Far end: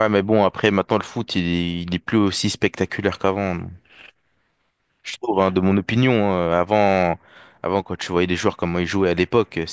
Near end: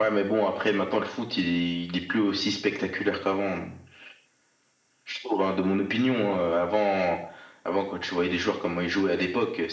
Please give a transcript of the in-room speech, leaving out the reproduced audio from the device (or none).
none